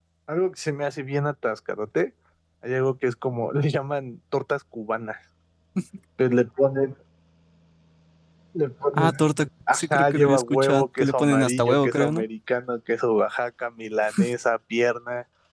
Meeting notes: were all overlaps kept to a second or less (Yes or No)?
No